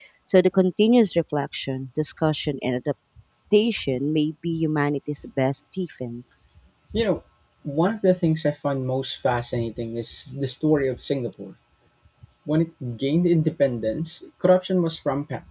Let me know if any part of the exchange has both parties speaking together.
No

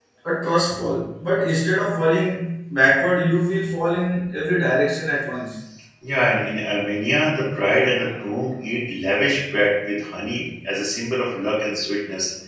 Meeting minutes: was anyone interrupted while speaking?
No

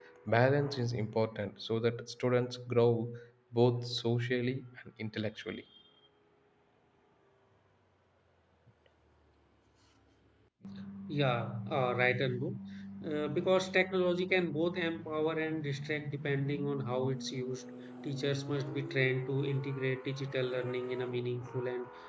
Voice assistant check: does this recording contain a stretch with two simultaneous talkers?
No

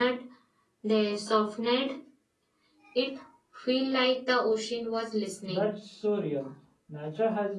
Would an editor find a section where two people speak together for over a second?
No

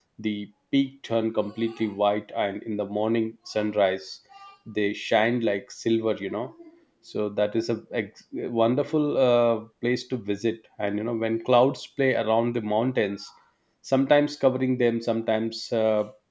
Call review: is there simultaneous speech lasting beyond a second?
No

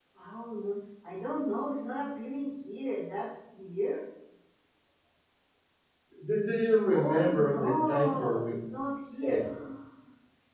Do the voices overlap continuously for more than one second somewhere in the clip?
Yes, from 6.9 s

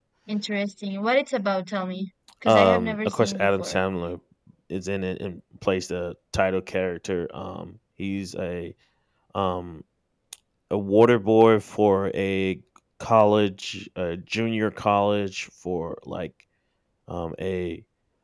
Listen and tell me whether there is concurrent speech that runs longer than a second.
Yes, from 2.5 s

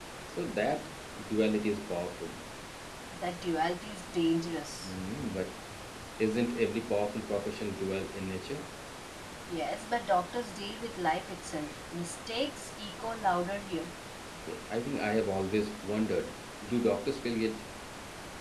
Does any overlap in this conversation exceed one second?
No

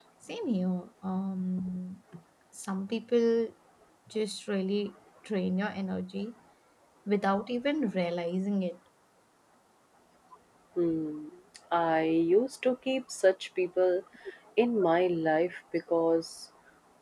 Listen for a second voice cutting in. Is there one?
No

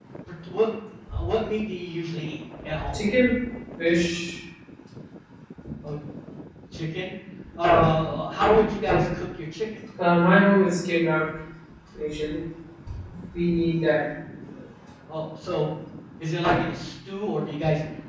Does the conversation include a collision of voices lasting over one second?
No

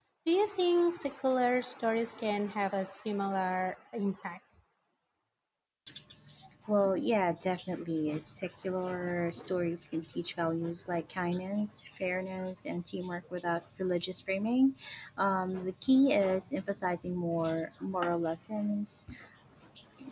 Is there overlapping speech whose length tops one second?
No

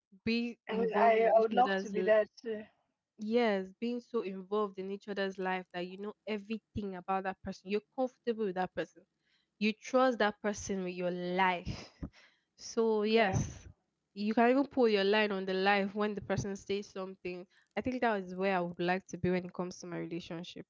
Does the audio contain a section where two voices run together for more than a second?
Yes, from 0.7 s

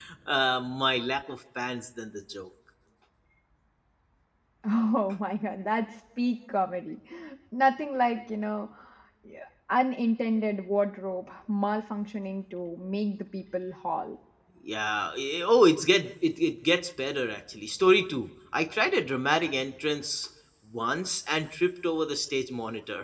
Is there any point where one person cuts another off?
No

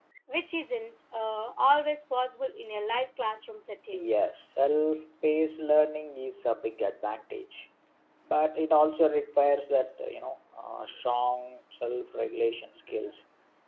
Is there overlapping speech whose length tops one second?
No

